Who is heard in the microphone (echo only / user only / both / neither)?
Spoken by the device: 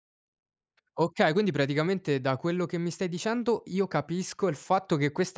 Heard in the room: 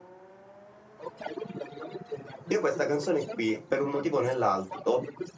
both